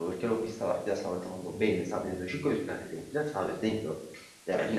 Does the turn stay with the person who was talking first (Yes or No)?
Yes